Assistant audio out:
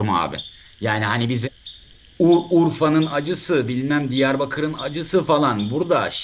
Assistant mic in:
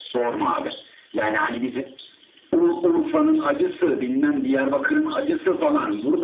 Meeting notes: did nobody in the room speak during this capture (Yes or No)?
Yes